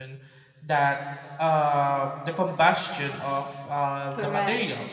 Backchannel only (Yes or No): Yes